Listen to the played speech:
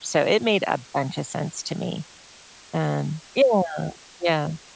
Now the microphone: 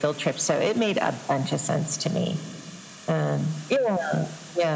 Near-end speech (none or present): none